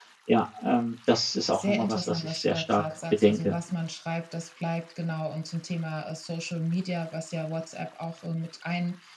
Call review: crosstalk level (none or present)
present